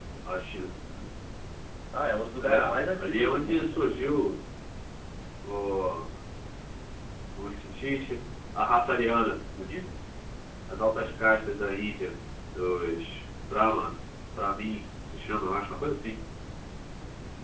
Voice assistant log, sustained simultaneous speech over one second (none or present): present